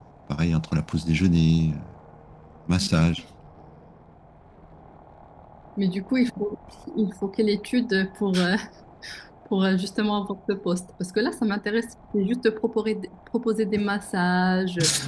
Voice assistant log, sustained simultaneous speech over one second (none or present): none